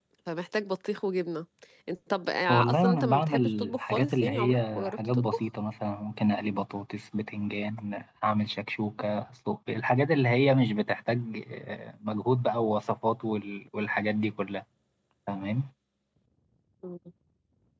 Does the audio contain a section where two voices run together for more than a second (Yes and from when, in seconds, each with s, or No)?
Yes, from 2.5 s